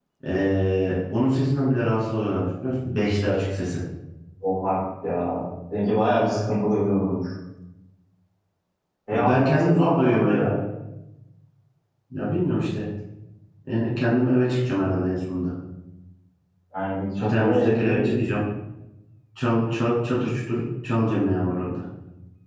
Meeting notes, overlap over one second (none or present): present